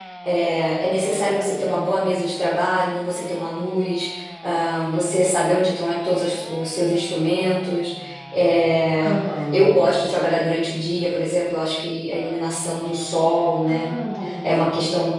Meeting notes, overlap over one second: none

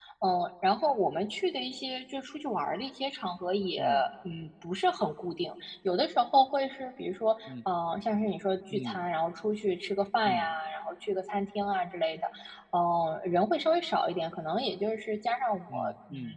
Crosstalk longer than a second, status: none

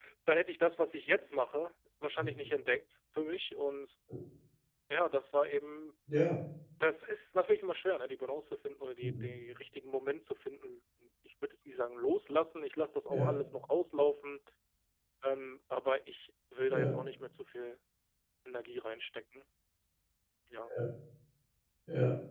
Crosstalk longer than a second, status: none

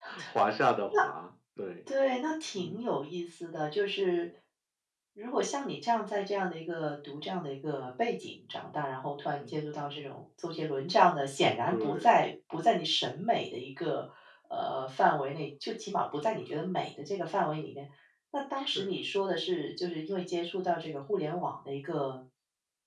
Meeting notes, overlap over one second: none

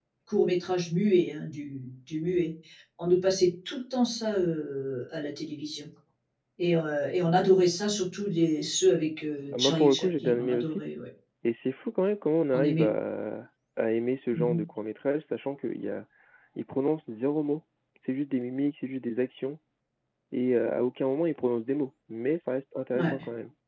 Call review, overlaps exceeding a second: present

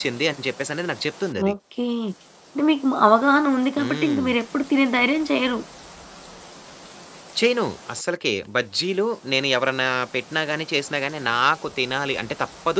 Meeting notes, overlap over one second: none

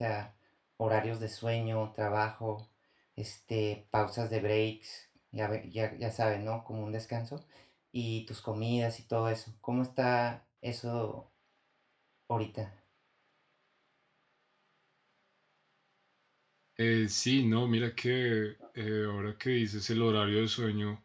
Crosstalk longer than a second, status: none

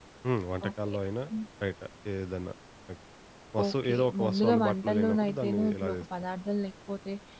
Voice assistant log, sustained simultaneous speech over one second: present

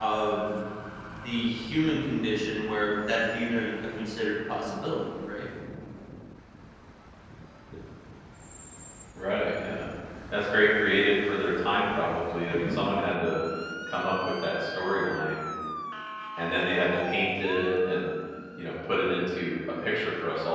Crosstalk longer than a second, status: none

